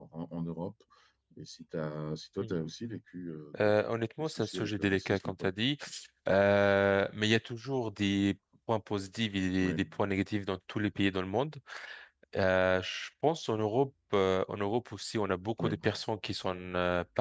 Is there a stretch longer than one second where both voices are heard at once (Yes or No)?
Yes